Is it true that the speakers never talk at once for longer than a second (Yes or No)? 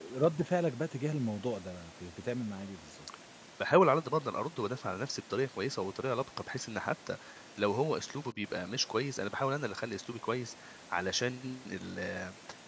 Yes